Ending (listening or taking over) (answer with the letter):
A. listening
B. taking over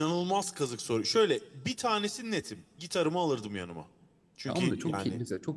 B